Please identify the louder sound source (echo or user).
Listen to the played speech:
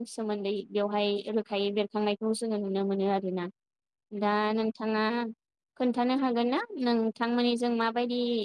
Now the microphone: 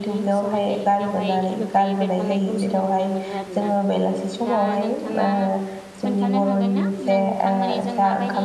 user